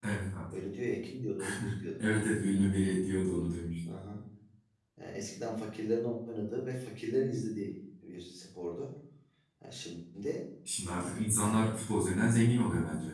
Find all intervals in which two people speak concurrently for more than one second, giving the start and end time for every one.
none

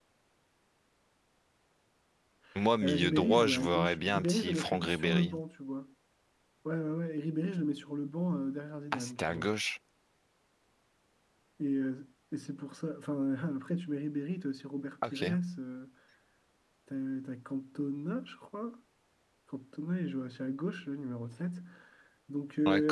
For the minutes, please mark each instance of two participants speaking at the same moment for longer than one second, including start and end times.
2.8-5.3

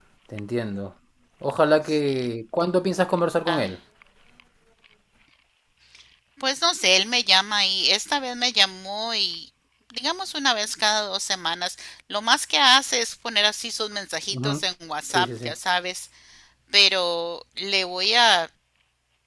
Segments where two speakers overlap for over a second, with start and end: none

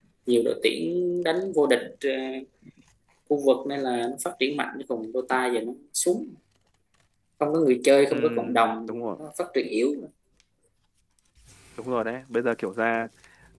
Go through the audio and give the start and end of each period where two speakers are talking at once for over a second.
none

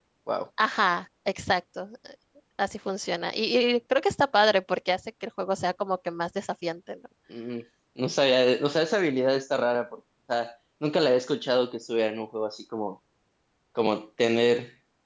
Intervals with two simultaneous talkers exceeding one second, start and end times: none

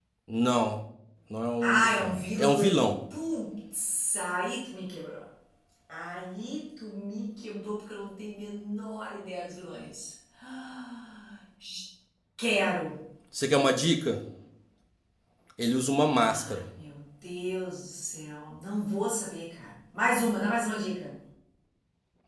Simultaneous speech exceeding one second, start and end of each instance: 1.6-2.9

